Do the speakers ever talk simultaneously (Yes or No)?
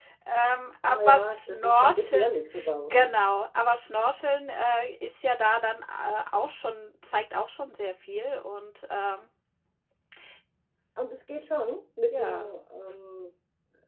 Yes